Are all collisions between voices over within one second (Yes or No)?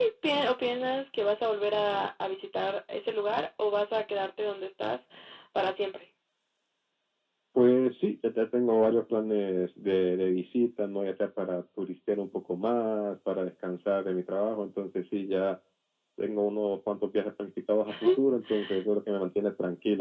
Yes